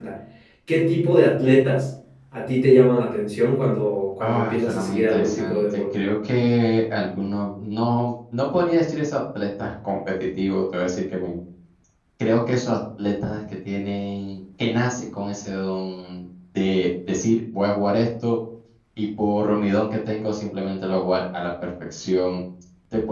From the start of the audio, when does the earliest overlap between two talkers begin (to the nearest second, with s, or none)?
4 s